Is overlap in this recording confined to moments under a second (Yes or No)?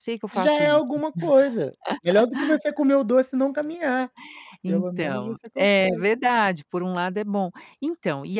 No